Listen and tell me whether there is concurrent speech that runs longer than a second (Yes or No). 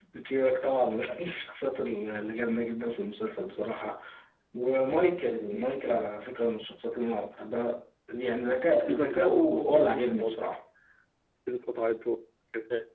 Yes